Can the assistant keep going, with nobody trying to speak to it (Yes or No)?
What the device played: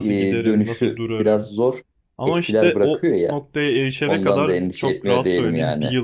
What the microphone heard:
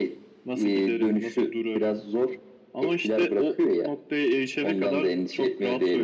Yes